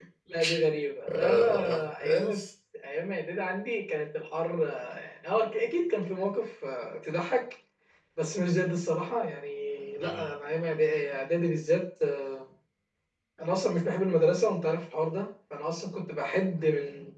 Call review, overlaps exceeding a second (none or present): present